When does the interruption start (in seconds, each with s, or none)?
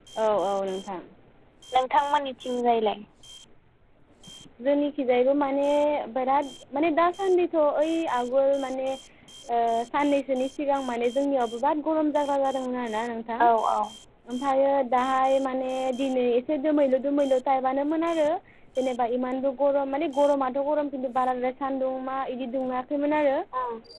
none